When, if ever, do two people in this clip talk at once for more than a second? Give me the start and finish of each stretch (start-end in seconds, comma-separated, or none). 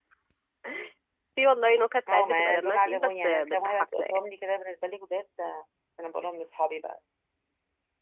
2.1-4.2